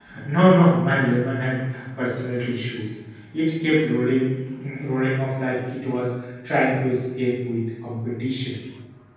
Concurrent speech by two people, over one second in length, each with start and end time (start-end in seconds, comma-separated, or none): none